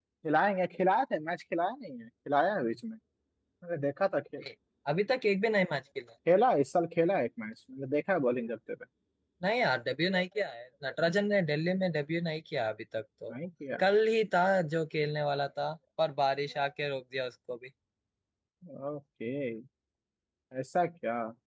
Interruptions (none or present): none